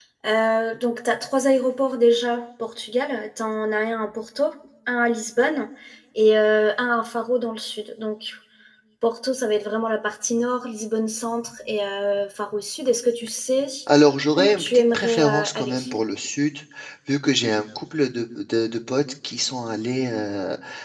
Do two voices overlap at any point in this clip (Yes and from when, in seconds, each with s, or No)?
Yes, from 14.4 s